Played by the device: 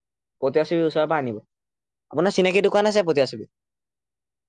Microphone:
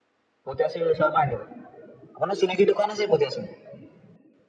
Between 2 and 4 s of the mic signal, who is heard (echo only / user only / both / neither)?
echo only